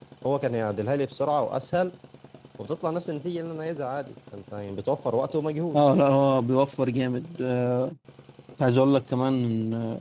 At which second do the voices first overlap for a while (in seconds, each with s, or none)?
none